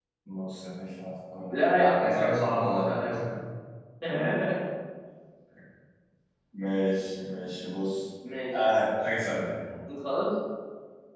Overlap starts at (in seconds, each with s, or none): 1.5 s